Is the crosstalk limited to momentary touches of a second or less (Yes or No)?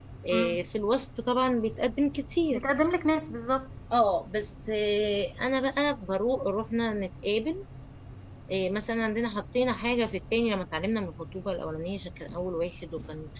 Yes